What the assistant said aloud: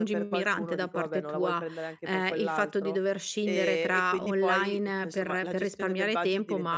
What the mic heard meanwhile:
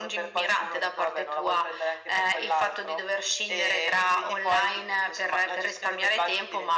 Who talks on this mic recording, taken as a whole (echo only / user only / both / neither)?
echo only